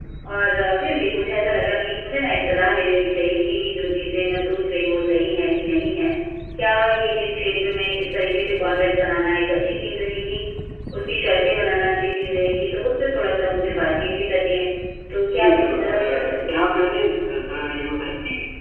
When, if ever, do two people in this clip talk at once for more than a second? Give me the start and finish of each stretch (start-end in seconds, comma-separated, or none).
15.4-16.7